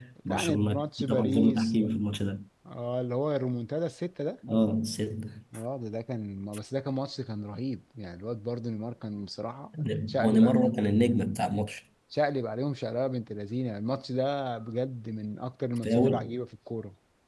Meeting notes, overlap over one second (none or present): present